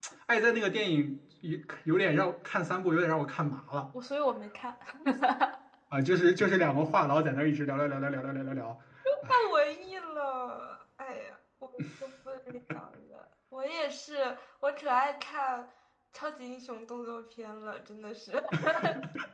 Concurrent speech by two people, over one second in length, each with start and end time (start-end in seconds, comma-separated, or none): none